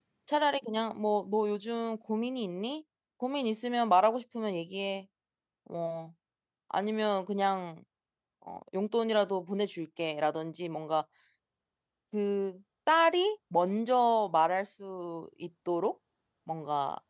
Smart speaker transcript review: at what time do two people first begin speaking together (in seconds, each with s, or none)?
none